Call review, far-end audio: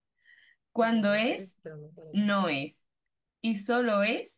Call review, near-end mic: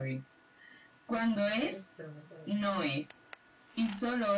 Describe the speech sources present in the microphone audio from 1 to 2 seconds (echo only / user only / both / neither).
echo only